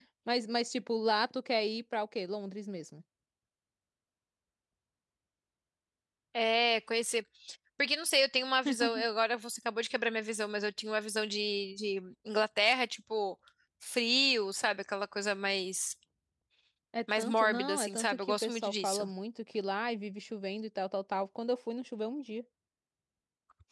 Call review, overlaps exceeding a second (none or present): present